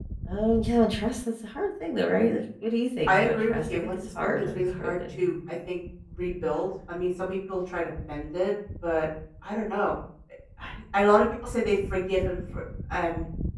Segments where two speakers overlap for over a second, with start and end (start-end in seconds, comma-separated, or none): 3.1-5.2